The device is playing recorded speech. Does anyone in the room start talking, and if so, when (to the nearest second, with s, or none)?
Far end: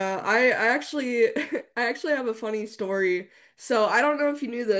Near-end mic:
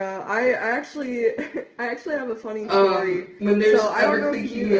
3 s